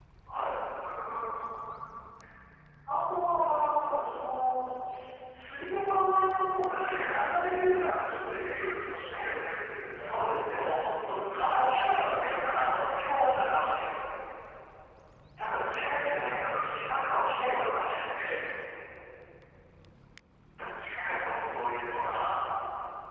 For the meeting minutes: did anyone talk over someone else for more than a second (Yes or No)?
Yes